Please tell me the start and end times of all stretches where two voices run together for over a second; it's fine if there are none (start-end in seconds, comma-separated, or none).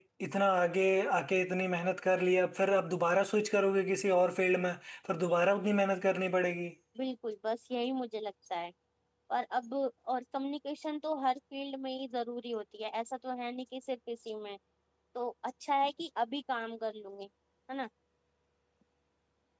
none